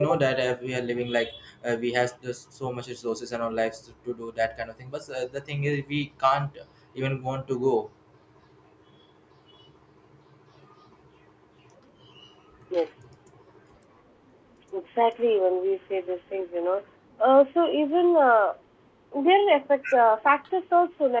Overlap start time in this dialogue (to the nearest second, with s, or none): none